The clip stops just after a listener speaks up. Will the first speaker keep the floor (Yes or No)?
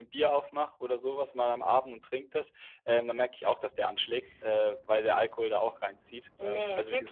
No